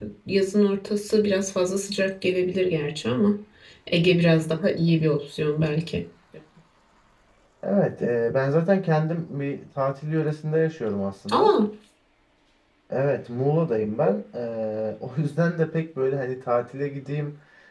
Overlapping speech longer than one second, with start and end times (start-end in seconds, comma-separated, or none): none